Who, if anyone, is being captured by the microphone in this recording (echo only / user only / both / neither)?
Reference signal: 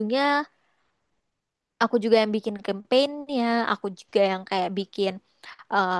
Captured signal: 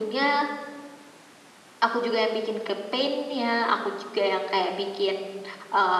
echo only